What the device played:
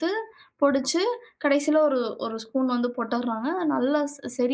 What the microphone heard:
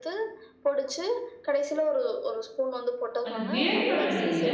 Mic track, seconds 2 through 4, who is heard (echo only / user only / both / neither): both